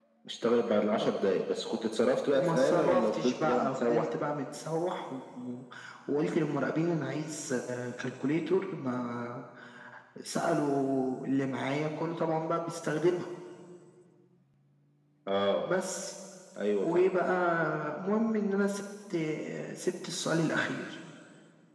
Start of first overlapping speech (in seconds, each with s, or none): 2.3 s